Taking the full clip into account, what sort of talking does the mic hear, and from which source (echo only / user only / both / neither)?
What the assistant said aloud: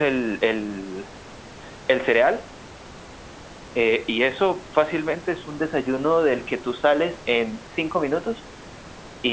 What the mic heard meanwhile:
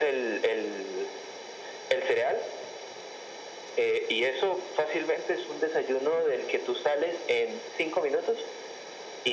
echo only